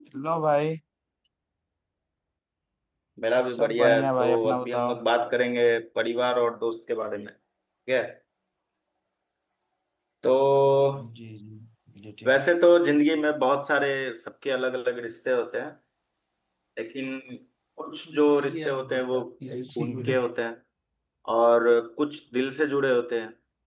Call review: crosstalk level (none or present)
present